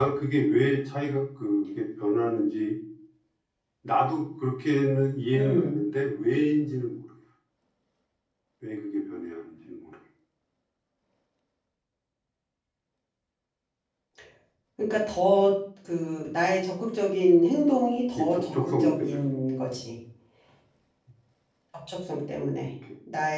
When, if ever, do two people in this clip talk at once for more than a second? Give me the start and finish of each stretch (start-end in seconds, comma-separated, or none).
18.2-19.7